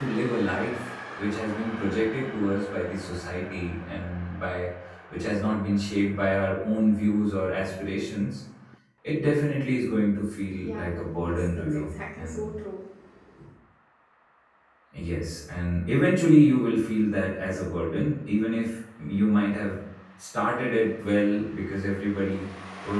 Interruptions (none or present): present